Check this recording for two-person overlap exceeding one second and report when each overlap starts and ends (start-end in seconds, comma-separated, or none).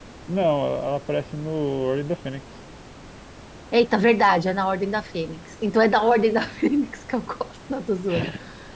none